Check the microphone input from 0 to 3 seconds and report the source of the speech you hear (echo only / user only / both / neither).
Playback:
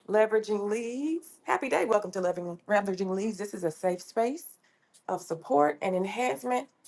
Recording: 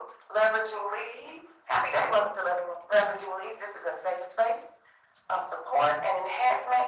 echo only